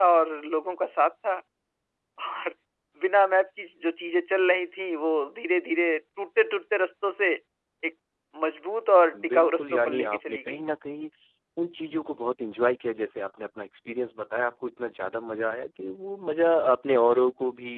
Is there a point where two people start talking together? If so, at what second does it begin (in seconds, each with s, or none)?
9.3 s